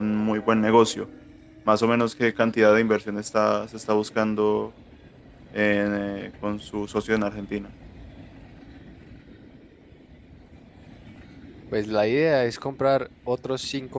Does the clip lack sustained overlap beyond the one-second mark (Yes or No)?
Yes